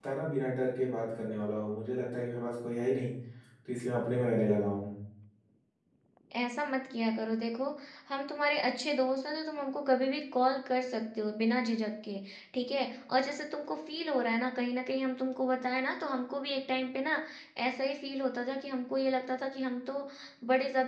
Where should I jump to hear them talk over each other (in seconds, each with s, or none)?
none